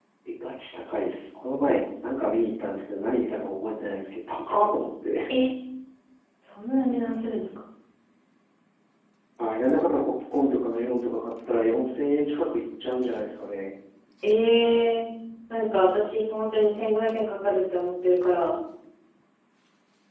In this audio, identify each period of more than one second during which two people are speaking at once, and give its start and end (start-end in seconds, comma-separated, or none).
none